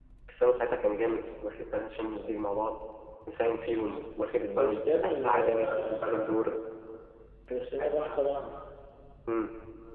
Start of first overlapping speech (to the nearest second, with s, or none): 5 s